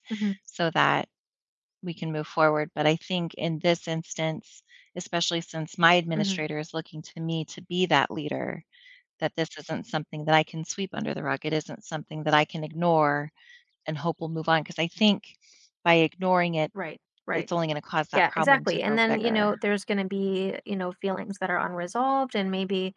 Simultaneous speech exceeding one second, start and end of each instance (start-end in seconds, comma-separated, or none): 18.1-19.6